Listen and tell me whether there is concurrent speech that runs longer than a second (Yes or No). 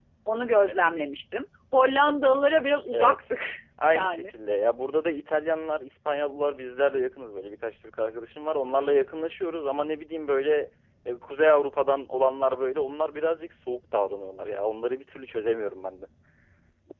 No